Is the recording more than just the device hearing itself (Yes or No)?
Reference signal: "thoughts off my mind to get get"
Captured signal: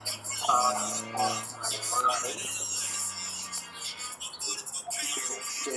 Yes